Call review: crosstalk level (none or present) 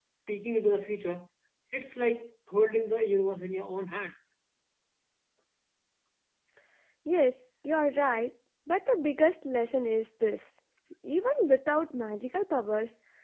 none